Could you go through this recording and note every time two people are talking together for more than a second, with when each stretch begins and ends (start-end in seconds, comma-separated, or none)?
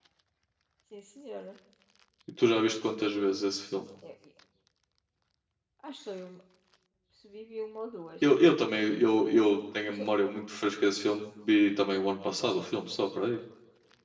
none